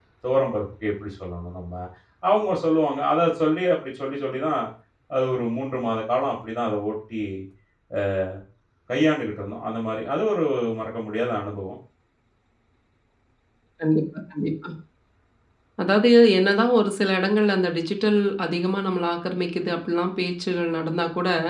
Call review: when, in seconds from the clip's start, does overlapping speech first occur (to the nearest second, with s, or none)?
none